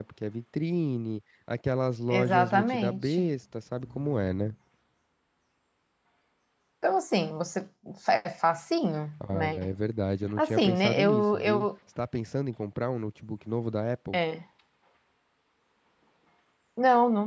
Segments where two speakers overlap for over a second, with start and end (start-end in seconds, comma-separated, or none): 2.1-3.3, 10.4-11.7